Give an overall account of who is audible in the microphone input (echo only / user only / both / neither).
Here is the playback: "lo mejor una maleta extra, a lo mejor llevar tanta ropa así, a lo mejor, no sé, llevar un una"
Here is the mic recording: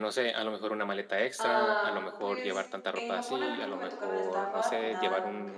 both